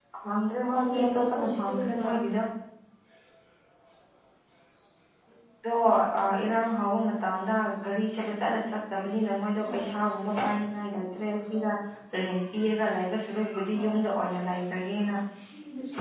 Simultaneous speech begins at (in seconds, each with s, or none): 0.8 s